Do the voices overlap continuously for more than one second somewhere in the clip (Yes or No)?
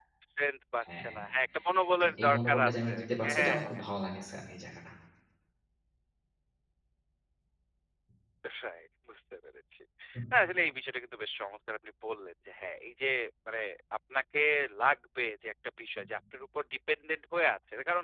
Yes